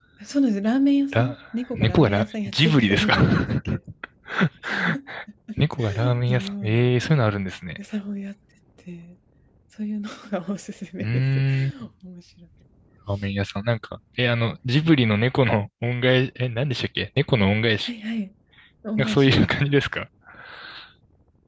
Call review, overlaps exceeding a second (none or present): present